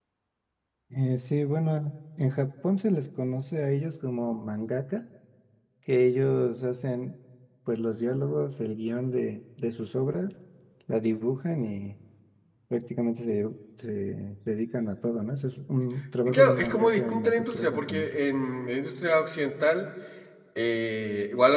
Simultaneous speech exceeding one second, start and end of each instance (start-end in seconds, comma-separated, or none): 16.3-18.2